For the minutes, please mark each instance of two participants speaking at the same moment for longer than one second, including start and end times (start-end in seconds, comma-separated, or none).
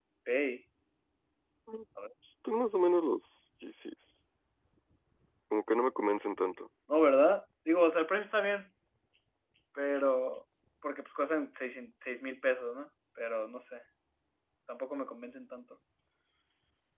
none